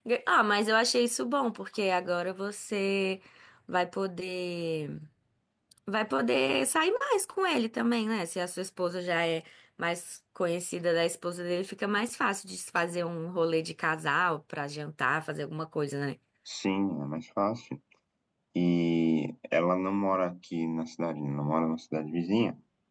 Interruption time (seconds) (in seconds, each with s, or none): none